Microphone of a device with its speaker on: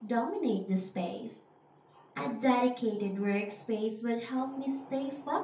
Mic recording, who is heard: user only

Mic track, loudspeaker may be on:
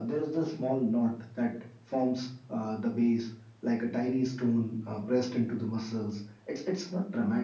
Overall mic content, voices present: echo only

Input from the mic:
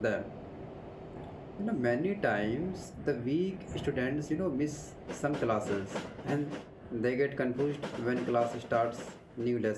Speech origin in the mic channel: user only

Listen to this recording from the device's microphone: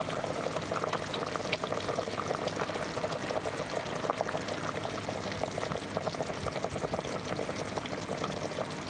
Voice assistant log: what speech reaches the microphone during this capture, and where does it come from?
neither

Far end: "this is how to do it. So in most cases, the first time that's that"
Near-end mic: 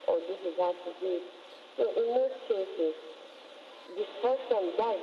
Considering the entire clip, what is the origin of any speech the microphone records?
echo only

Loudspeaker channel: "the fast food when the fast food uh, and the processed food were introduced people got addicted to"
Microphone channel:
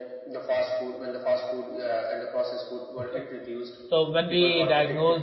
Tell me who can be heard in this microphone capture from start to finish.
both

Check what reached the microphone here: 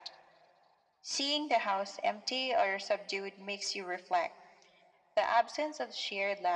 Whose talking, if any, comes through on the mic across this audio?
echo only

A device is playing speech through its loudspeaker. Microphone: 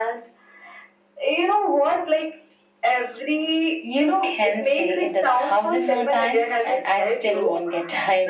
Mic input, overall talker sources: echo only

